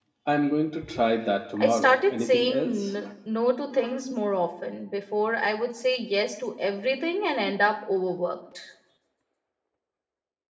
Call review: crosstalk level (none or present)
present